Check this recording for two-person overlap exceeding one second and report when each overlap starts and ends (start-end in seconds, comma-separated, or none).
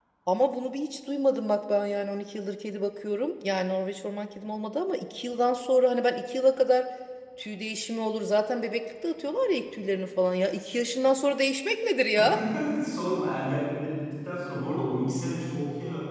none